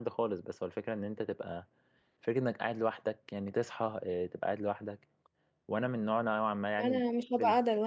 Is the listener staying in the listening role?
No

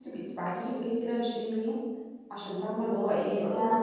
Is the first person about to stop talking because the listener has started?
Yes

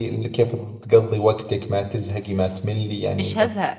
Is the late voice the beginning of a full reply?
Yes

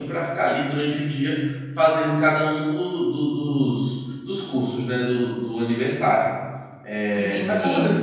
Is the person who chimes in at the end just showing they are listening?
No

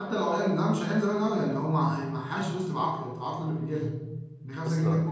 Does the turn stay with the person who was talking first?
Yes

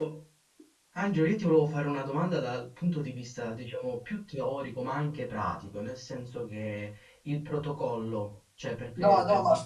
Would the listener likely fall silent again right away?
No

